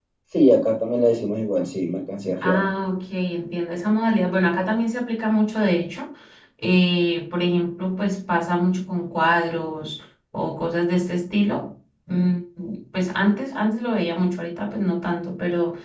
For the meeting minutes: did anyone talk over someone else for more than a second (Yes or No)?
No